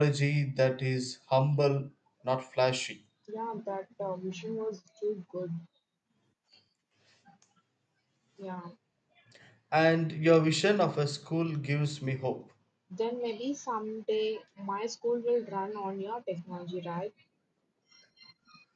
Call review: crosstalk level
none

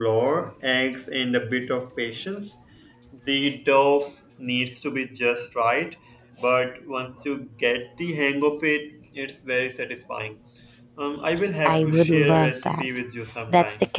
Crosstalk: present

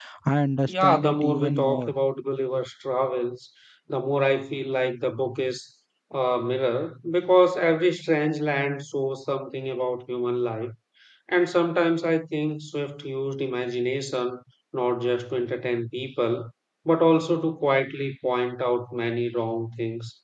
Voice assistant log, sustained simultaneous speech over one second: present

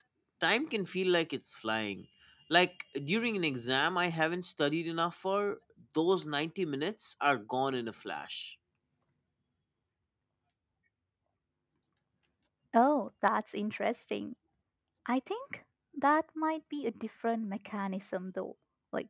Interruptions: none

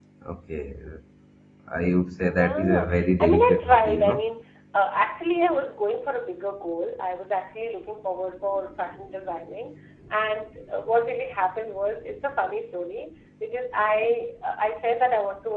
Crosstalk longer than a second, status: present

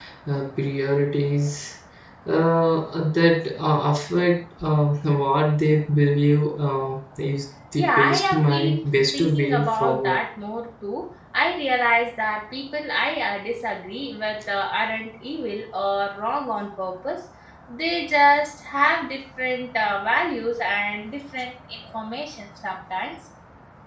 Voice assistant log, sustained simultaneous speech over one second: present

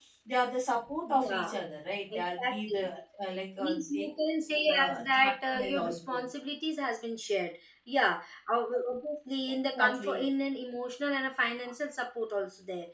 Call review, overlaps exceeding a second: present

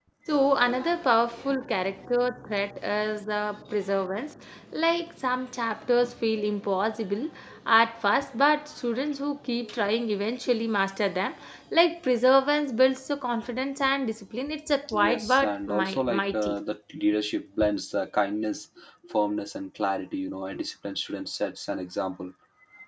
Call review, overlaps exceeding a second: present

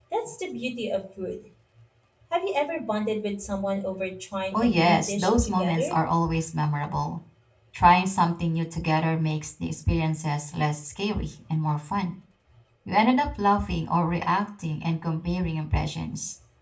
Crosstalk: present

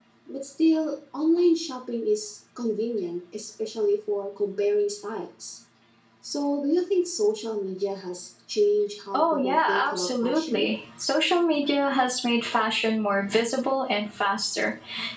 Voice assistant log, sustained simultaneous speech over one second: present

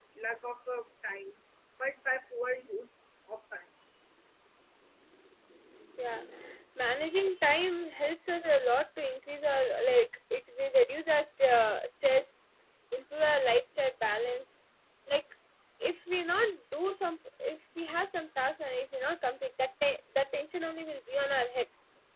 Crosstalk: none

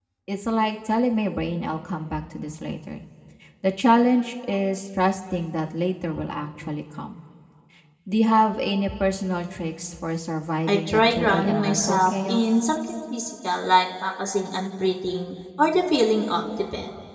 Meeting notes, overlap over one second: present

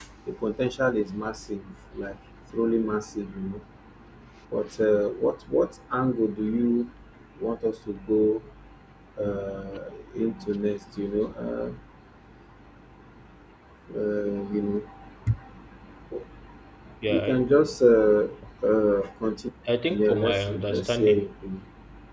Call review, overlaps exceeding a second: present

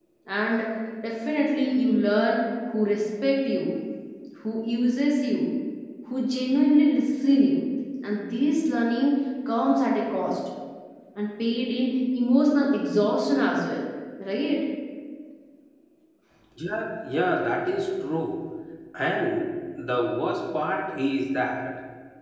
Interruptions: none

